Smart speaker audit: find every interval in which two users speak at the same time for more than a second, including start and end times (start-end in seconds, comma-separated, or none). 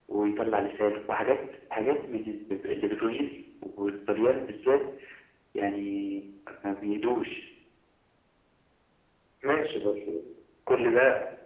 none